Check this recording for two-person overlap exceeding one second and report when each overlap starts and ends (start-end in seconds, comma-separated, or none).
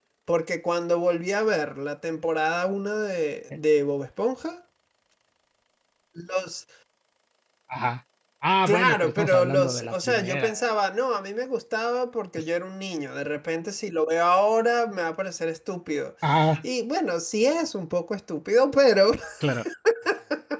8.7-10.6